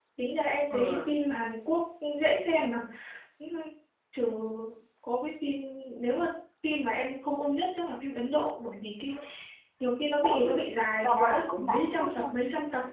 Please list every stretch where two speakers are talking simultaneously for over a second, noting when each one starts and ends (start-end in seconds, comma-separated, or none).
11.0-12.3